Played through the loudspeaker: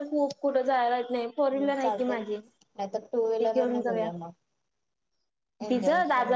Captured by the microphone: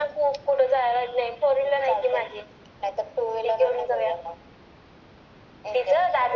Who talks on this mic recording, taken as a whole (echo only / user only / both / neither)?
echo only